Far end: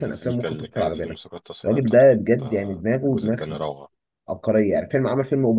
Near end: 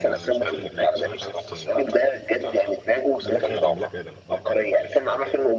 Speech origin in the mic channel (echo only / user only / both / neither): both